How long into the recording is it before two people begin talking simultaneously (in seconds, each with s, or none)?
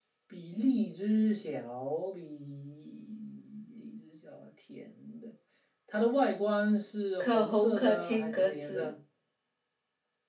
7.2 s